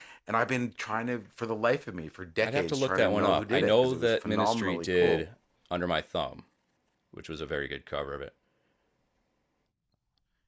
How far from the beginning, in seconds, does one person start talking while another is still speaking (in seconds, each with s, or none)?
2.4 s